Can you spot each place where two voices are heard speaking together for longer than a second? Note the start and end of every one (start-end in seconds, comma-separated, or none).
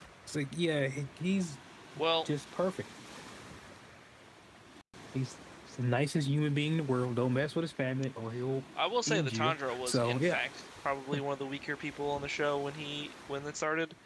9.1-10.4